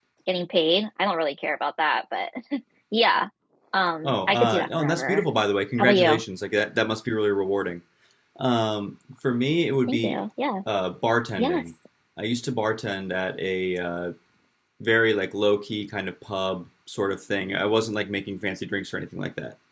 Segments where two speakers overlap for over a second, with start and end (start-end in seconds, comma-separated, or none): 4.0-5.2